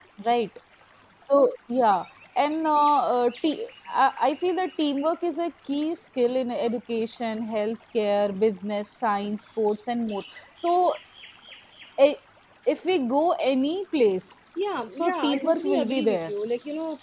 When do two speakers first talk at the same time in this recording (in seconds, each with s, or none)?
14.9 s